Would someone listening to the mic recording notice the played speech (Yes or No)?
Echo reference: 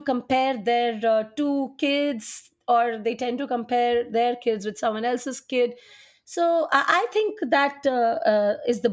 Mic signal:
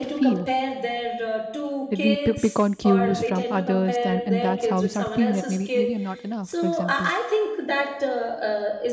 Yes